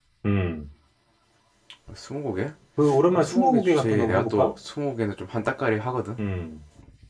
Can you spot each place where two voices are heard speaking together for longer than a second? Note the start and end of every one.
3.1-4.5

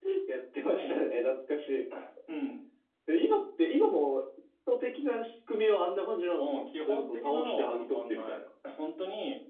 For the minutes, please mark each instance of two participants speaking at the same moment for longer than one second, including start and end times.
6.4-8.4

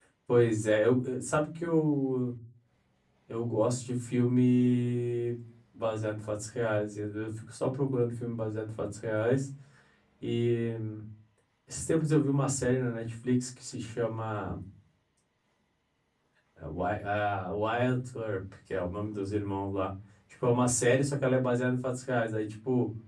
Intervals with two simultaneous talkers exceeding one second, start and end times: none

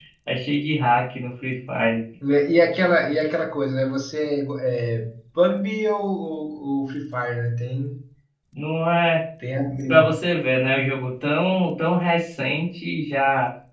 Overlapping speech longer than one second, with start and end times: none

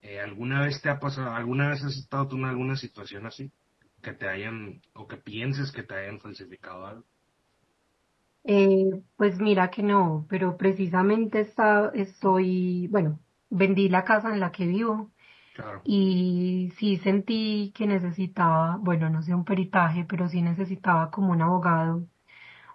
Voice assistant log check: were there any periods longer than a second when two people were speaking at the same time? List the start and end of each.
none

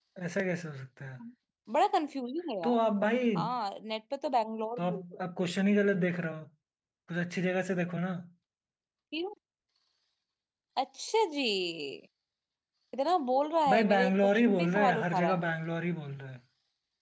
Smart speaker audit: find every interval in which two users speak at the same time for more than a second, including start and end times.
13.7-15.4

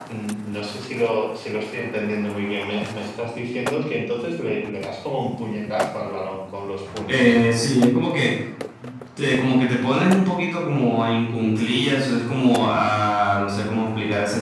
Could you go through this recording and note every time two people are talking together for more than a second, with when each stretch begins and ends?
none

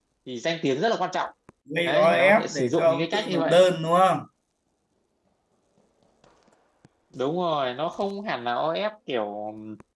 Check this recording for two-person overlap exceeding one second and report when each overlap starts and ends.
1.8-3.6

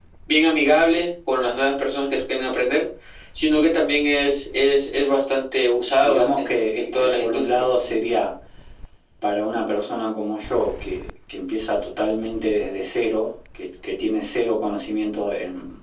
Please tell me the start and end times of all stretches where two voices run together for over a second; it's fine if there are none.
6.0-7.7

